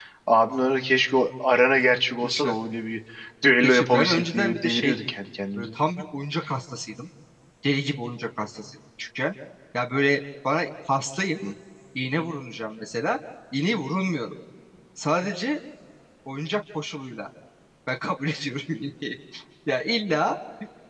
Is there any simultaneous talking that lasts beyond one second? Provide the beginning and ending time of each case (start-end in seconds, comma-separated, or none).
3.6-5.0